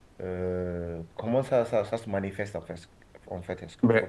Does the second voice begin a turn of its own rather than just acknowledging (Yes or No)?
Yes